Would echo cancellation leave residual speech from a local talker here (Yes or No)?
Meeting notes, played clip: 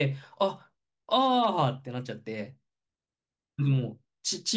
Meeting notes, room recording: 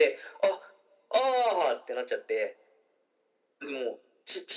No